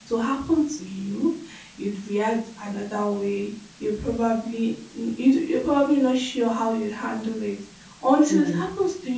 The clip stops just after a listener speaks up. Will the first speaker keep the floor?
Yes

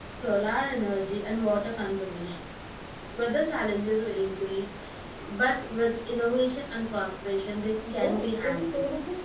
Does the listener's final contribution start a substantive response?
Yes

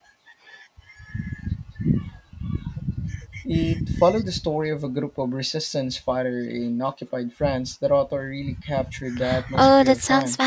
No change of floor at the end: No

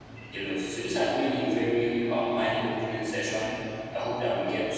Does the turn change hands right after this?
No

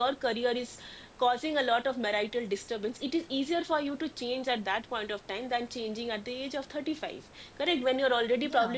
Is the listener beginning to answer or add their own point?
No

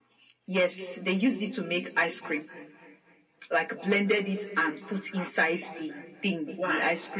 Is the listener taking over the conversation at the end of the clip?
No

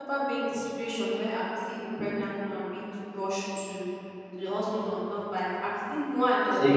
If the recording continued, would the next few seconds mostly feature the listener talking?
No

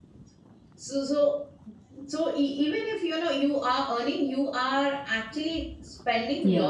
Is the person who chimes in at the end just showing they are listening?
No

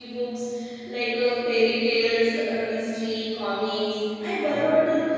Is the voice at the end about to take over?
No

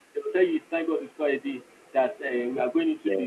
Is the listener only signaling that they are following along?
Yes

